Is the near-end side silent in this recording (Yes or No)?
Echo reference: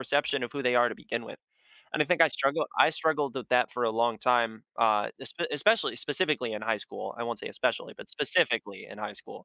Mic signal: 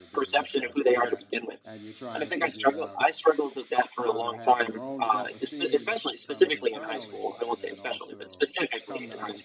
No